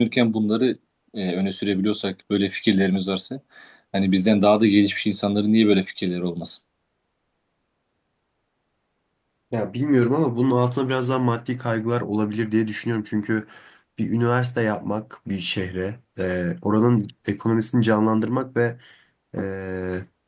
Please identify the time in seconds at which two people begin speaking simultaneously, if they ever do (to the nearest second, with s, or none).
none